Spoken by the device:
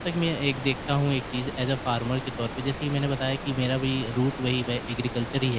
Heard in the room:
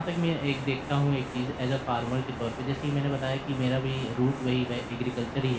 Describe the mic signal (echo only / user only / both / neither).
echo only